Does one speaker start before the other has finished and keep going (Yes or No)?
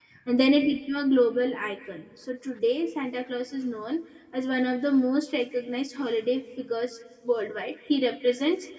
No